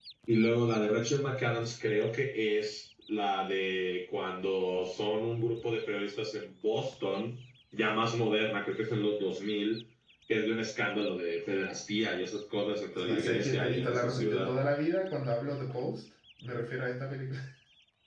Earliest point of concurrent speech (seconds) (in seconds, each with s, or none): 13.1 s